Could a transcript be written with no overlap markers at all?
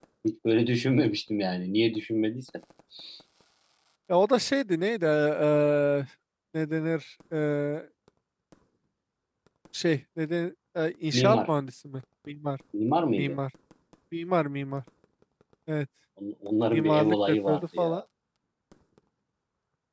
No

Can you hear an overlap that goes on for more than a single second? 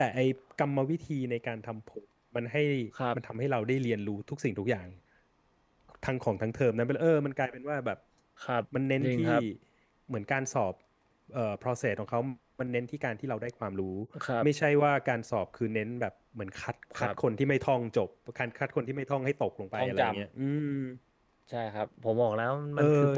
No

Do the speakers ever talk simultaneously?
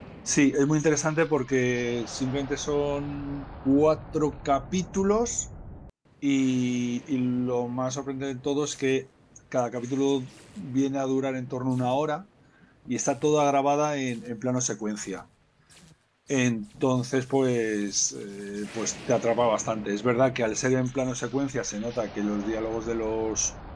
No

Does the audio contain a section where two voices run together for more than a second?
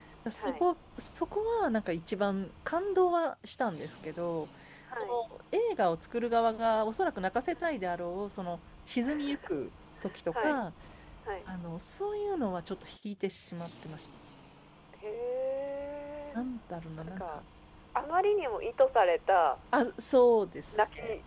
No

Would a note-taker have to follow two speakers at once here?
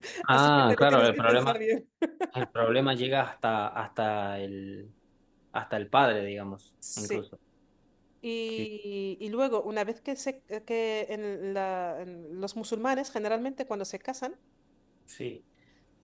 Yes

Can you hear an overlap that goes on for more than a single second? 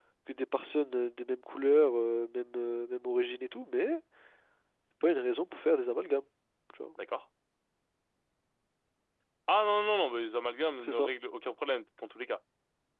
No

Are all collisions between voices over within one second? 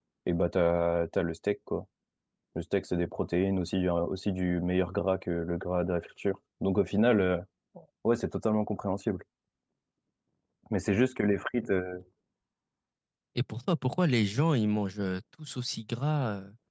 Yes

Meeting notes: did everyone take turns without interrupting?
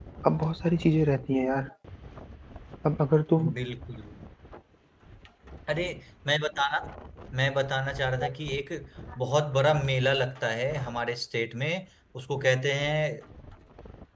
Yes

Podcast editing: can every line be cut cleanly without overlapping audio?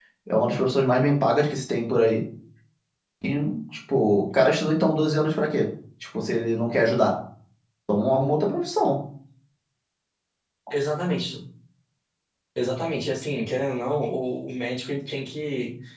Yes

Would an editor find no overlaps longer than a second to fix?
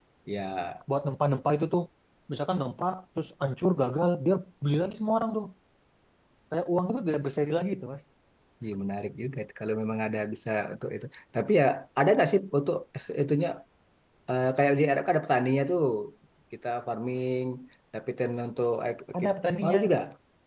Yes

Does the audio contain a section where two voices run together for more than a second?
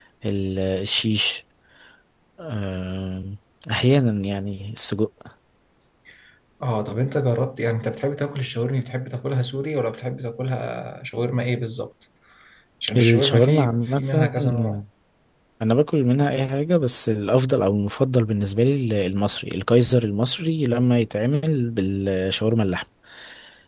Yes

